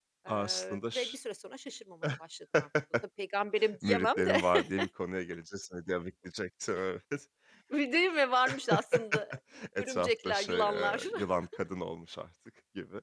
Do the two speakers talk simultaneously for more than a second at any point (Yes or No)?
Yes